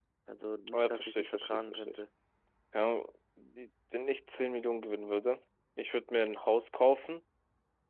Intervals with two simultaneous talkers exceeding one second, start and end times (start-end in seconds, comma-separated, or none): 0.7-2.0